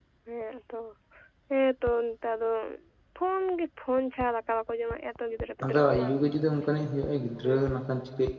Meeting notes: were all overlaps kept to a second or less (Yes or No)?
Yes